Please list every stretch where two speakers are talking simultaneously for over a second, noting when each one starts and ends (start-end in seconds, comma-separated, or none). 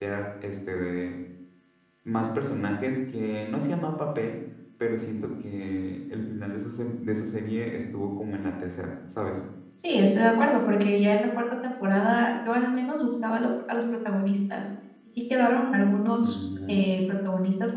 none